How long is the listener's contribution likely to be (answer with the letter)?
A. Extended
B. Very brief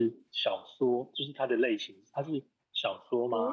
A